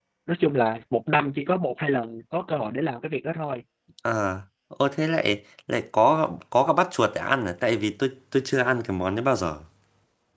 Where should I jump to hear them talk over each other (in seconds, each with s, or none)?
none